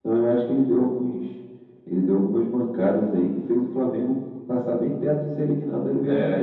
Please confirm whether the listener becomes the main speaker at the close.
Yes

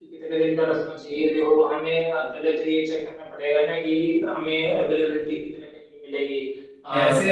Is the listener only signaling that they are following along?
No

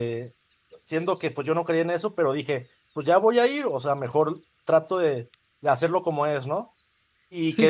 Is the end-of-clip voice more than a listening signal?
No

